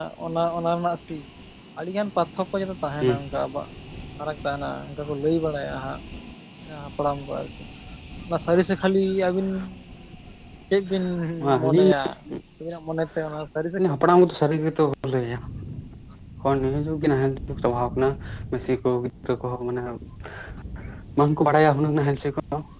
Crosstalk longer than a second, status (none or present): none